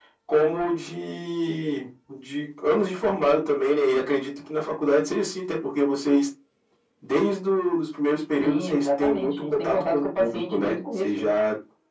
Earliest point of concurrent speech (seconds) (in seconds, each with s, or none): 8.4 s